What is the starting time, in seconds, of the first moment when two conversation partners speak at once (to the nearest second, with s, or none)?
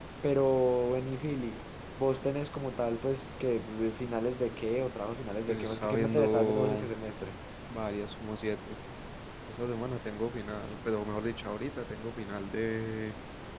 5 s